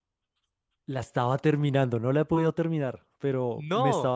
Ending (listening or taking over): listening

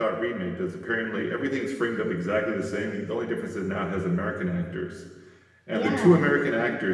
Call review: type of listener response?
listening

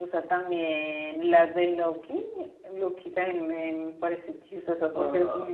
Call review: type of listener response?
listening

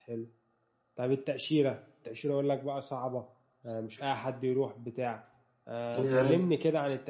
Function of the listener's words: listening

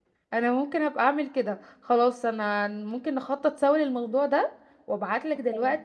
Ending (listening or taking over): listening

